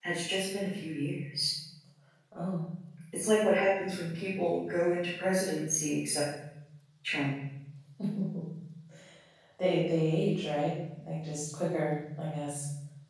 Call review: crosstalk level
none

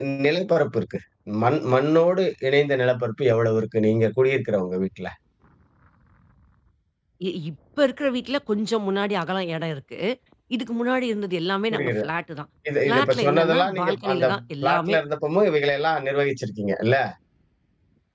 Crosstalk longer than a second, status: present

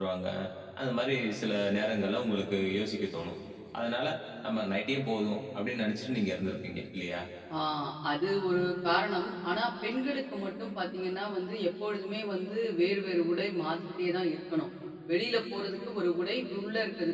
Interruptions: none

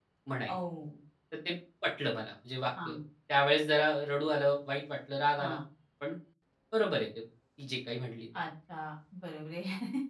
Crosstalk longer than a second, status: none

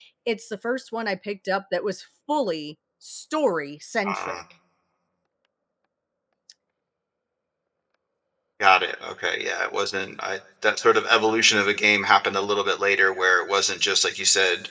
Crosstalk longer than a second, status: none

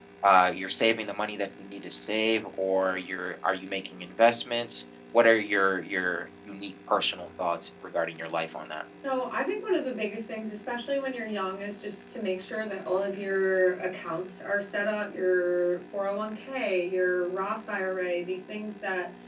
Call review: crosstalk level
none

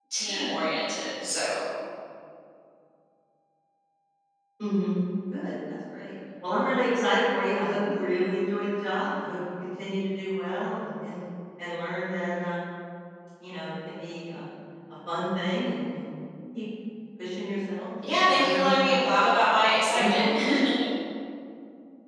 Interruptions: present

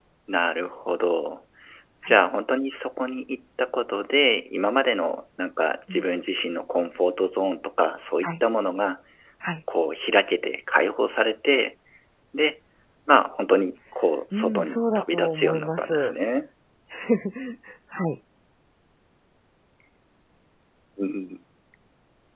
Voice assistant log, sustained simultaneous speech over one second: present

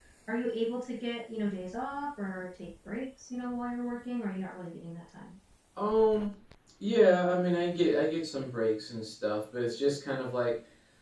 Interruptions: none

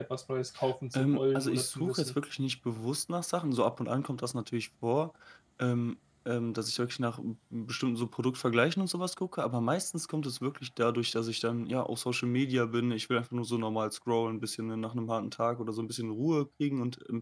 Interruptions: present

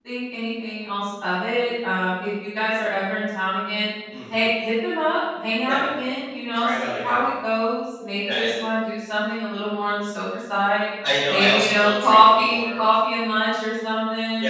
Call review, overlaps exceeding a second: present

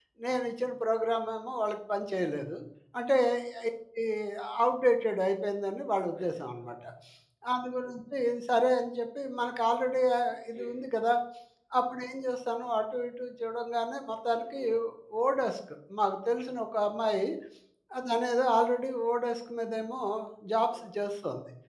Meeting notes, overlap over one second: none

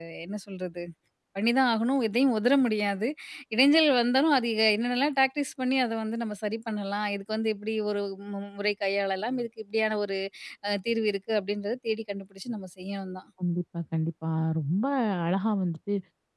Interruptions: none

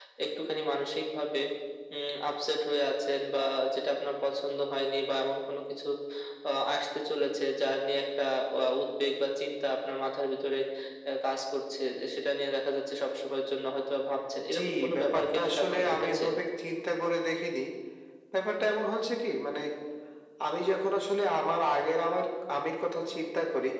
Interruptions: present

